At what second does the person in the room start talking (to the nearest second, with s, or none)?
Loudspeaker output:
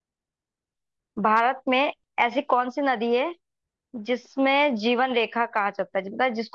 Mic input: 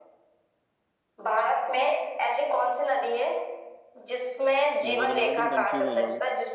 5 s